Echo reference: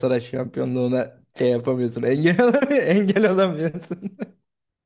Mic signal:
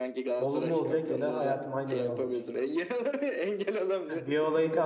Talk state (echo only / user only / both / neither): both